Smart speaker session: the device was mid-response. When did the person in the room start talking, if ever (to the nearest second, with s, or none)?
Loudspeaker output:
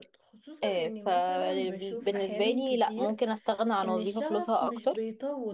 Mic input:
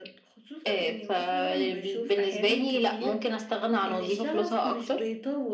none